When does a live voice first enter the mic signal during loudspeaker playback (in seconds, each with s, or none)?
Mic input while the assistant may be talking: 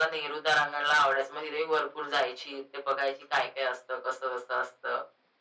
none